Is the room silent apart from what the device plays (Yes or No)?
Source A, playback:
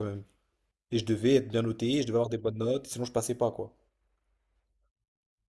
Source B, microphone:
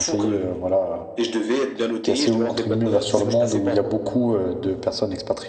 No